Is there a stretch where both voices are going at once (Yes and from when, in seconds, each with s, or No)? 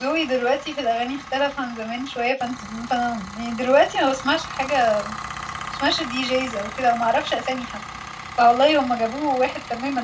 No